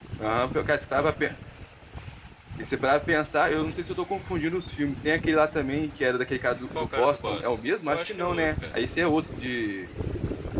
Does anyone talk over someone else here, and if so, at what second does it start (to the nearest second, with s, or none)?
7 s